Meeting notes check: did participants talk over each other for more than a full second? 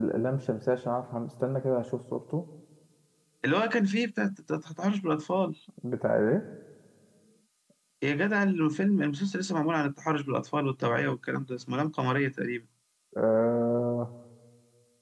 No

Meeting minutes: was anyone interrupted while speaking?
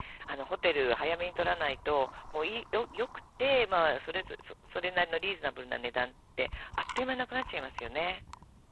No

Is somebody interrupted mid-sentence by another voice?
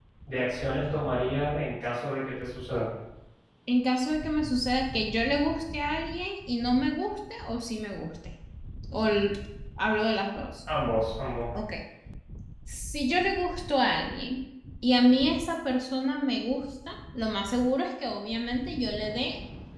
No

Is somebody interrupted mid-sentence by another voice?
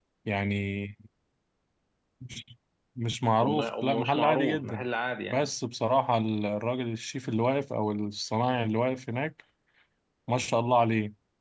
Yes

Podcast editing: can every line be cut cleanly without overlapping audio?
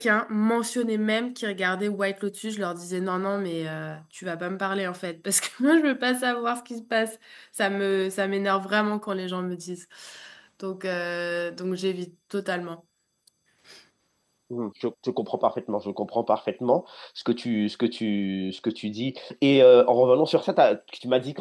Yes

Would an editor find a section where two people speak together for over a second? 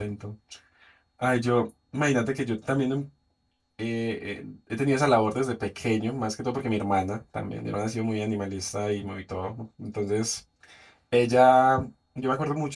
No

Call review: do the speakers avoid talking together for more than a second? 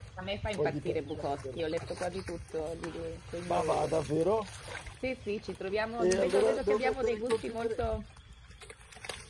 No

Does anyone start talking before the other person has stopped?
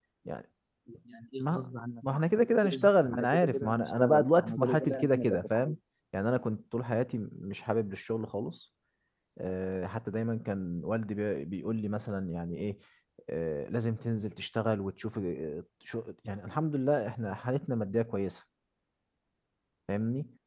Yes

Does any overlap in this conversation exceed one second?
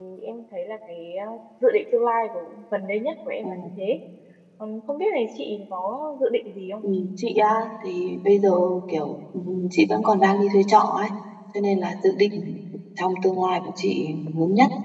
No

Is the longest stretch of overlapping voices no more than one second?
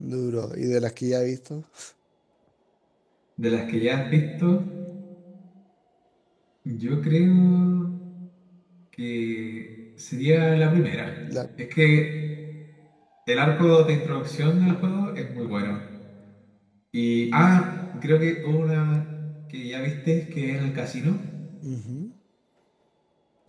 Yes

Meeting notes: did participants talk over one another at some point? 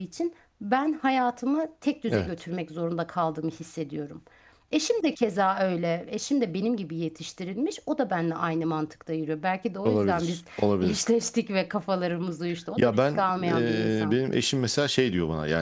Yes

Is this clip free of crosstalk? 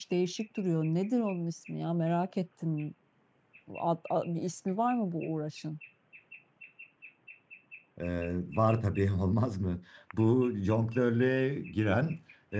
Yes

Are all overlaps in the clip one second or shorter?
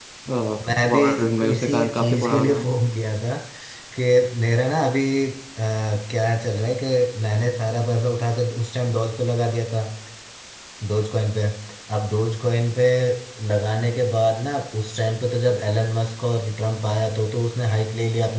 No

